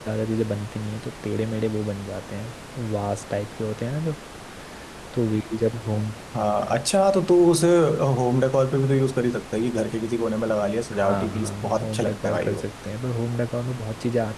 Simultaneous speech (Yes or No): Yes